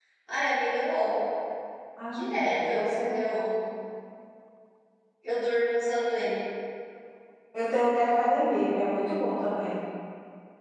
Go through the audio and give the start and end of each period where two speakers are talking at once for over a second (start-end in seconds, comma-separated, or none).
2.1-3.5